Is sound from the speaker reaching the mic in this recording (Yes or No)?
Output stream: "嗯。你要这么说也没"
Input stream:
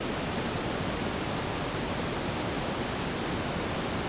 No